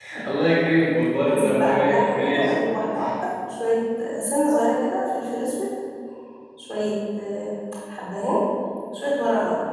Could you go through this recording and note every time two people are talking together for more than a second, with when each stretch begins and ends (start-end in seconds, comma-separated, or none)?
1.3-2.5